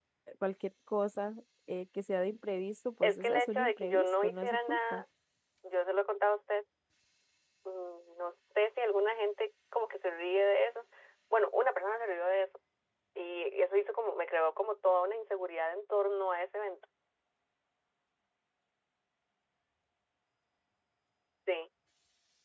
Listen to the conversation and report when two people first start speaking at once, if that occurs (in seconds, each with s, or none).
3.0 s